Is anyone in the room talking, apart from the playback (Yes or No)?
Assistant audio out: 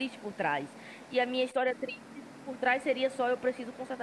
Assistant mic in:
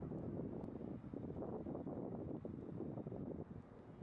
No